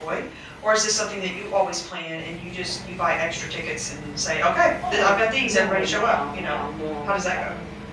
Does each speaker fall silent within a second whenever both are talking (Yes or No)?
No